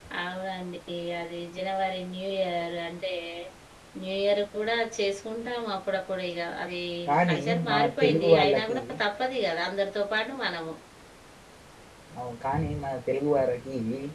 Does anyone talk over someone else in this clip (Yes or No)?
Yes